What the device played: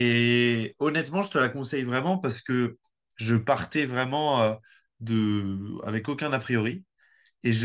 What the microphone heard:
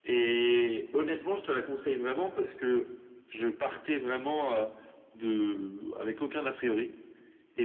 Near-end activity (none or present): none